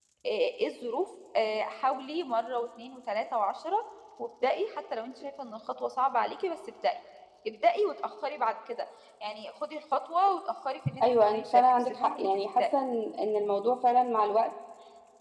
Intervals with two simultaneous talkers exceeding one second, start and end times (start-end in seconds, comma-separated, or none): 11.0-12.7